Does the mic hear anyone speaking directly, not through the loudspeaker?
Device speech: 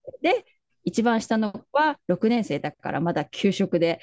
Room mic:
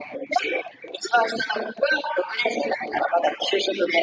No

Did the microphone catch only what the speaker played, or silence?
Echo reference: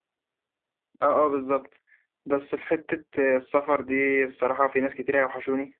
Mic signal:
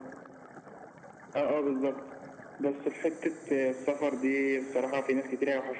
Yes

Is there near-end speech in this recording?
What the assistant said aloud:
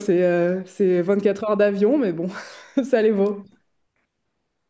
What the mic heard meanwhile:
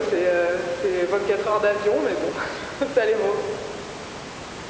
No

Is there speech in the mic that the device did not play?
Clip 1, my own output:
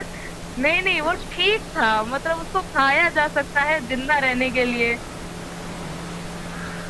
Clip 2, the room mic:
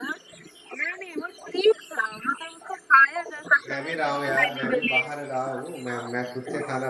Yes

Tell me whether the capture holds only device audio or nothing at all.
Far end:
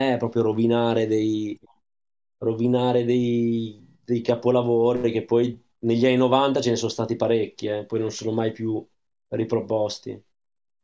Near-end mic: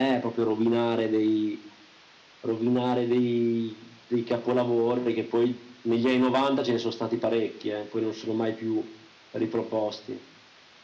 Yes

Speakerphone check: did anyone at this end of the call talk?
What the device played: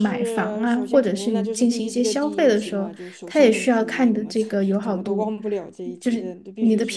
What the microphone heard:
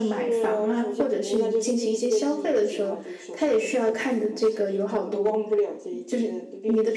No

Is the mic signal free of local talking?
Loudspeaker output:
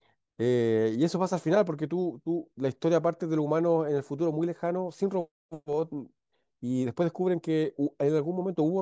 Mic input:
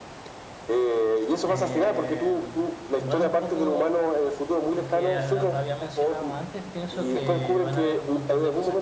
No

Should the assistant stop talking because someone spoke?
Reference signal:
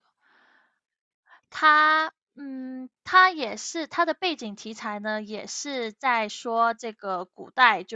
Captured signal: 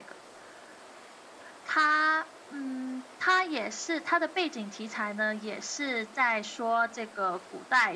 No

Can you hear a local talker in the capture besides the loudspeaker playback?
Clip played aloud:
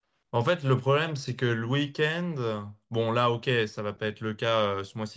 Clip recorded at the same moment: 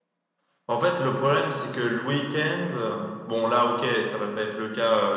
No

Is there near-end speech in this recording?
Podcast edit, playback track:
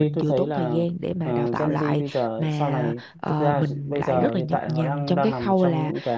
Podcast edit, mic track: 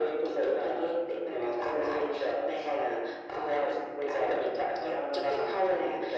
No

